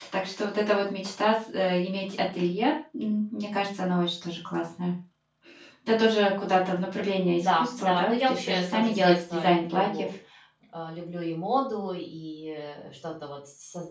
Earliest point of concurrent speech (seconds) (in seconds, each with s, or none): 7.4 s